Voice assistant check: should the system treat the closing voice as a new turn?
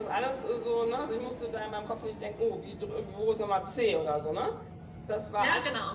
No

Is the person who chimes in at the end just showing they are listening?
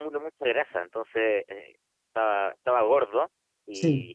Yes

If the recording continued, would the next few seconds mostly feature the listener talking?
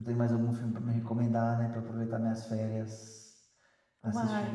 Yes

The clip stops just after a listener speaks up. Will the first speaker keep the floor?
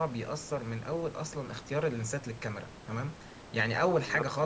Yes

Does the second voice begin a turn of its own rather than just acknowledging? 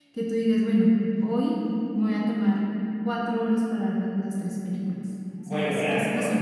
Yes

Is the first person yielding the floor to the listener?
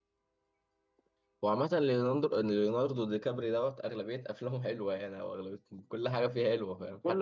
No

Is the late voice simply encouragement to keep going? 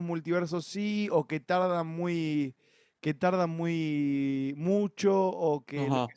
No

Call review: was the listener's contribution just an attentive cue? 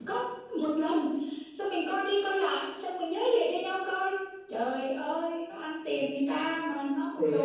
No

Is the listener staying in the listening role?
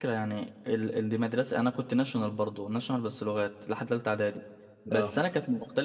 Yes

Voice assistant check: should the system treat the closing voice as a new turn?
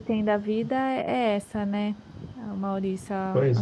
No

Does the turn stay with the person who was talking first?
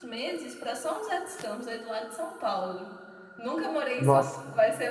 Yes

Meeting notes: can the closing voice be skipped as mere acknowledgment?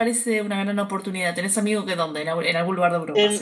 No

